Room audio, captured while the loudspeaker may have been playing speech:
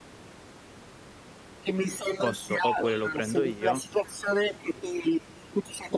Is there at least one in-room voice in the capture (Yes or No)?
Yes